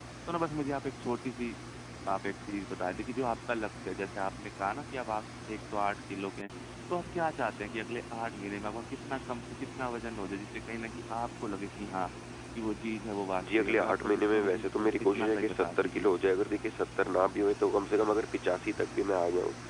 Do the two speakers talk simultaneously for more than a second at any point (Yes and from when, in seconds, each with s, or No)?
Yes, from 13.4 s